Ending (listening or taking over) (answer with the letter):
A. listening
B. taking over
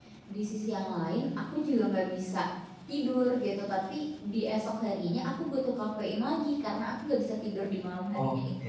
B